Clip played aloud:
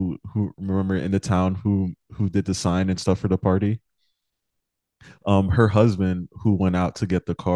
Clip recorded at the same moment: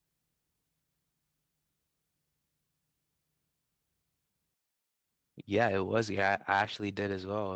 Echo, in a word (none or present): none